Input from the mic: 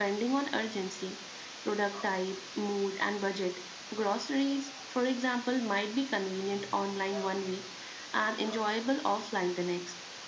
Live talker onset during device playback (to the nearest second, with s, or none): none